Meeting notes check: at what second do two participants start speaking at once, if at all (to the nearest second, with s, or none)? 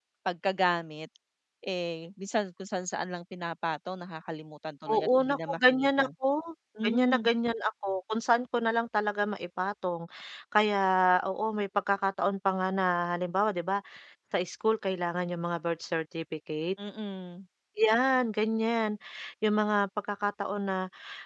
5 s